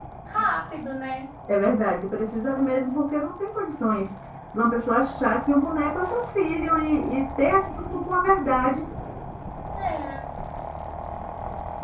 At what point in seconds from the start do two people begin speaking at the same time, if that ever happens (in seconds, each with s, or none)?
none